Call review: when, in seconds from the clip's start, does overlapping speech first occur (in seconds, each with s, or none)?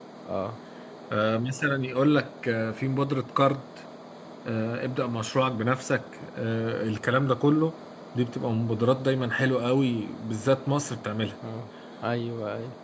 none